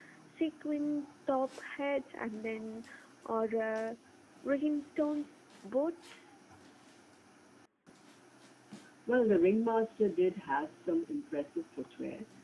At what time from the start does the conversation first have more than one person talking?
none

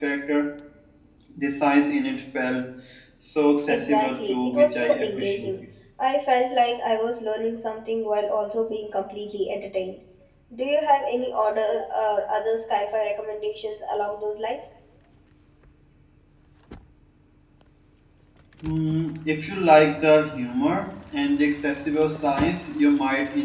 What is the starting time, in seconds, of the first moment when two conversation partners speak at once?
3.7 s

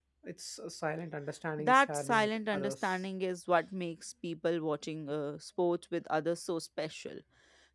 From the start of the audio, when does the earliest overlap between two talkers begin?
1.6 s

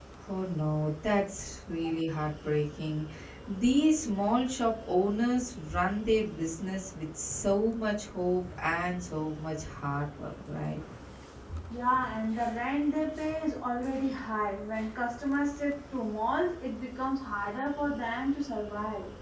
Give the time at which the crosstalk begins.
none

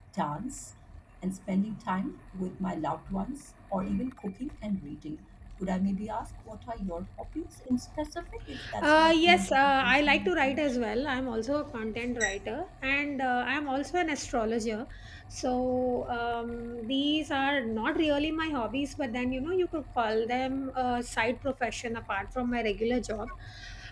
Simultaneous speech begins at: 8.8 s

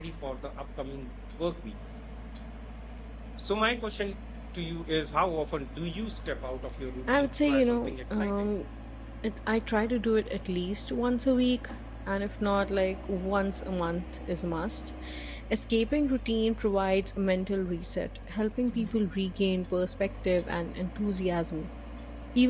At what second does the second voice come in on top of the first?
7.1 s

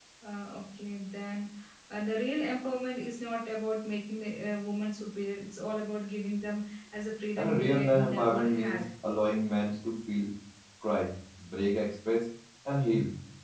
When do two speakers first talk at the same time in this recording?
7.4 s

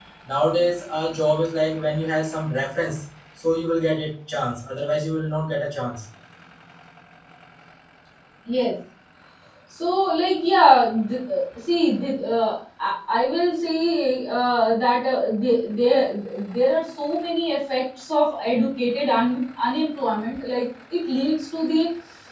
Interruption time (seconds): none

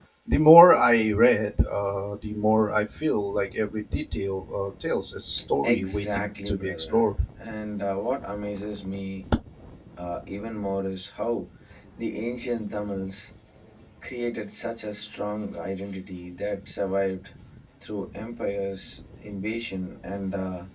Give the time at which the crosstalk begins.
5.6 s

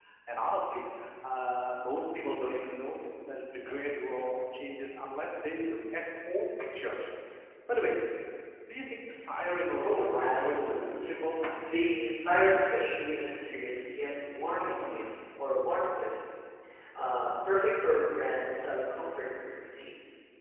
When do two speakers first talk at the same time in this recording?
9.8 s

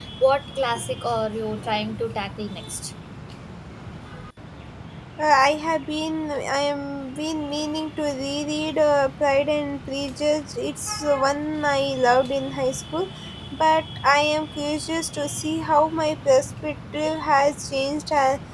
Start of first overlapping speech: none

